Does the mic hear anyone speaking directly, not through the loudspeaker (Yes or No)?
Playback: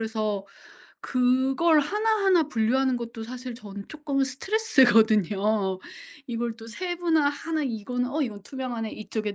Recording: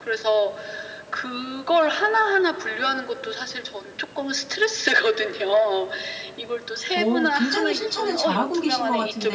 Yes